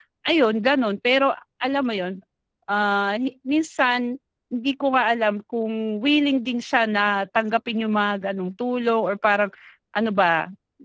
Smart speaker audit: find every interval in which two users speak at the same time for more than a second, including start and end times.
none

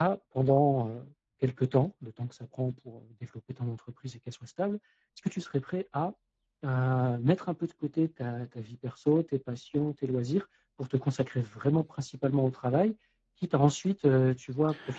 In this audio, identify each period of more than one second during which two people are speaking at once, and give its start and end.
none

